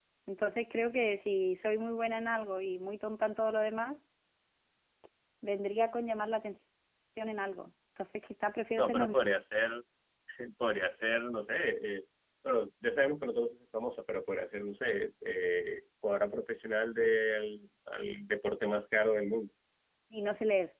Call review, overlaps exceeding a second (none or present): none